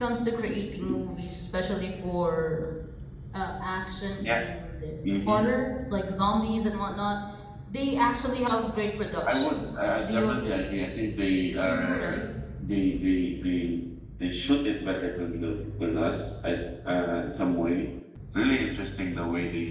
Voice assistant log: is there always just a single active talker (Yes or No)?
No